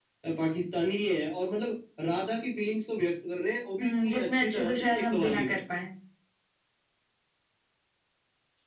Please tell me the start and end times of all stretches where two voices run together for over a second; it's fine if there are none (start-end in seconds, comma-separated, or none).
3.8-5.5